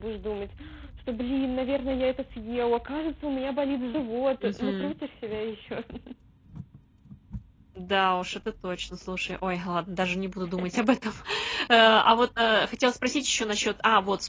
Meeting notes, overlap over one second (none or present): none